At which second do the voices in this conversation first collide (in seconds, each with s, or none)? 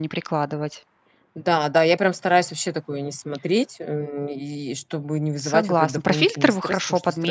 5.4 s